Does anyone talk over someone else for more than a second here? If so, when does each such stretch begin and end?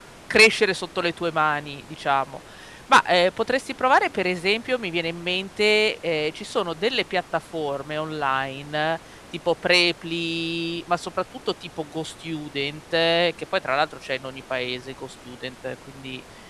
none

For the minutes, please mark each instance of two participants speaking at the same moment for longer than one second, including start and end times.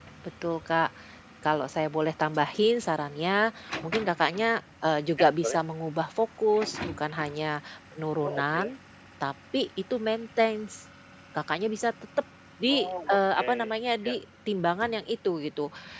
12.7-14.2

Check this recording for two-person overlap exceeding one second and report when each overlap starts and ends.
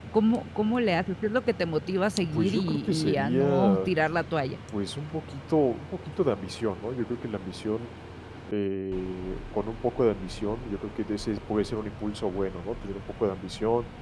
2.3-3.9

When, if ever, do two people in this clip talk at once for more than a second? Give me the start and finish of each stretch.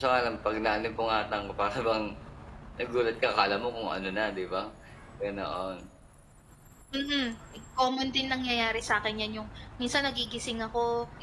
none

